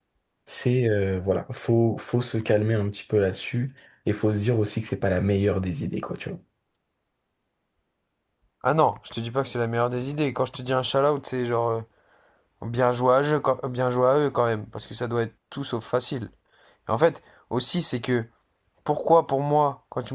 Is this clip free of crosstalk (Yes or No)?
Yes